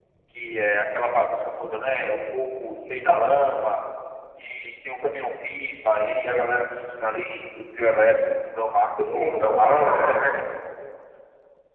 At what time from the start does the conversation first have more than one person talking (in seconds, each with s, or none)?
9.0 s